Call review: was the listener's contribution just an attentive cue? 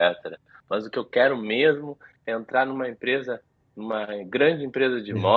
Yes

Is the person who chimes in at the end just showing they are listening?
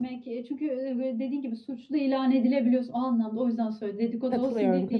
No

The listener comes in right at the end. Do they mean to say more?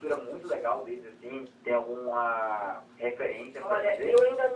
Yes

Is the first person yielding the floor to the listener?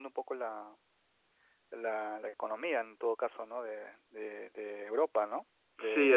Yes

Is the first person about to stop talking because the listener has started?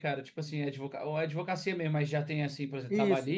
Yes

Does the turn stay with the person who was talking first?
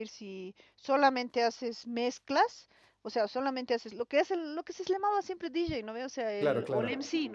Yes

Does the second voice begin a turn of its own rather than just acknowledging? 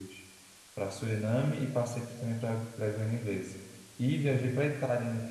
No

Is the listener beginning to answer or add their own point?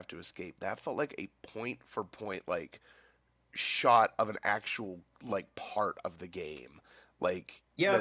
Yes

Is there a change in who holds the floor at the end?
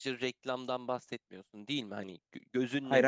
No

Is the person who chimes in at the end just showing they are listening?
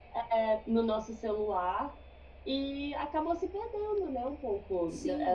No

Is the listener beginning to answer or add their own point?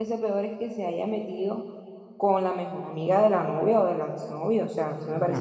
Yes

